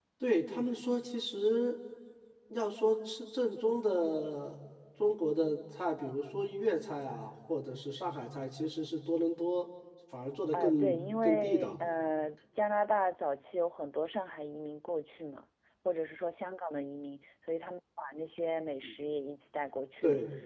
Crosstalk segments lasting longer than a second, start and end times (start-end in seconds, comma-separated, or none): 10.5-11.7